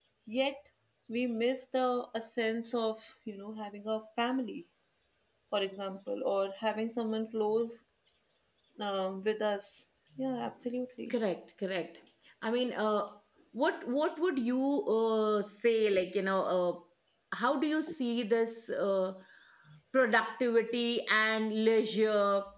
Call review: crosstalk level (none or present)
none